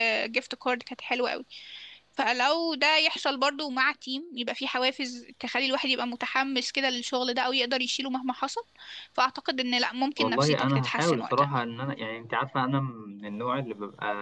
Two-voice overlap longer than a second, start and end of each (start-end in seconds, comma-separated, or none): 10.2-11.5